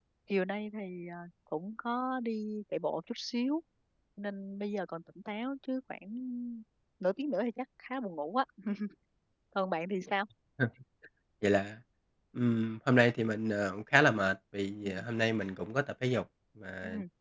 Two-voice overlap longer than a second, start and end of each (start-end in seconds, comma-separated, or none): none